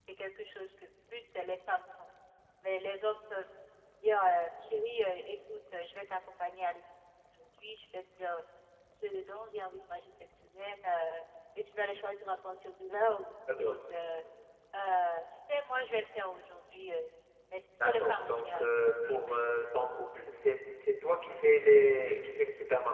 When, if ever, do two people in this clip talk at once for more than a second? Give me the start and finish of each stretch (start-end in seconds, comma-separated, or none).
17.8-19.3